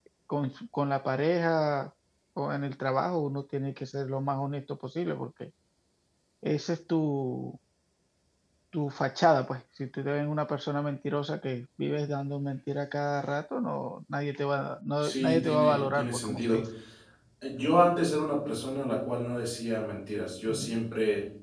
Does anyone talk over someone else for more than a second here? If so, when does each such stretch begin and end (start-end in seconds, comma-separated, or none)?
15.0-16.6